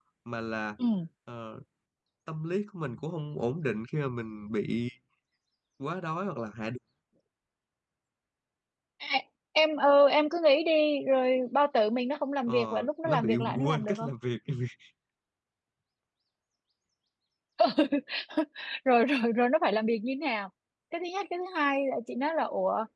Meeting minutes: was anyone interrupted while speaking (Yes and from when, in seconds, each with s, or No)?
Yes, from 12.5 s